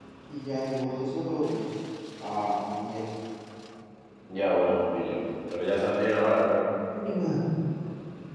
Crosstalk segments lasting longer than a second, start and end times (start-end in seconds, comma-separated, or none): none